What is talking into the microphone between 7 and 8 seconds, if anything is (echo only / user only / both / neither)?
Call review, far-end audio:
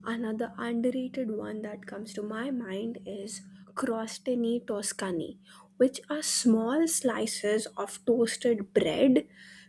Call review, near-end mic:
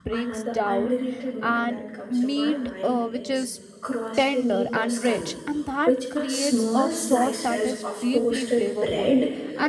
both